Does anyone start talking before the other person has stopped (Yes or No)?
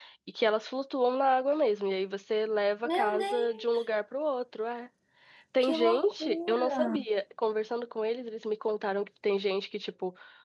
Yes